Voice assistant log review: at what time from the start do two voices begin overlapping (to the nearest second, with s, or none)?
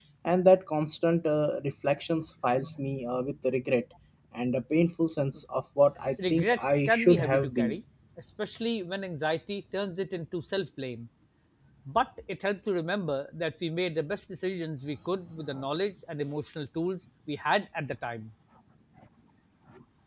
6 s